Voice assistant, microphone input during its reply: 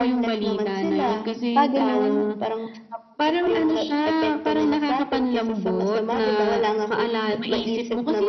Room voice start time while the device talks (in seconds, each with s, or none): 1.6 s